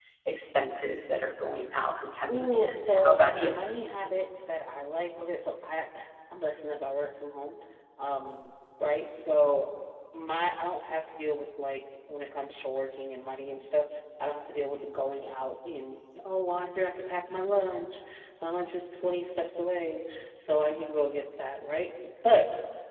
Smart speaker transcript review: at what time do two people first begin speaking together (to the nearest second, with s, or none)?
2 s